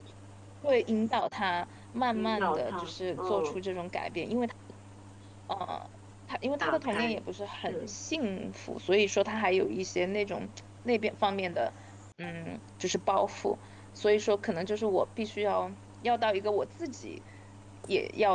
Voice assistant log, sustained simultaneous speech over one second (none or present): present